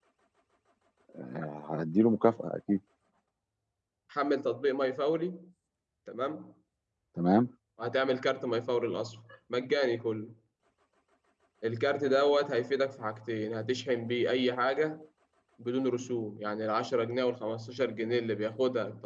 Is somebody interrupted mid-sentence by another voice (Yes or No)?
No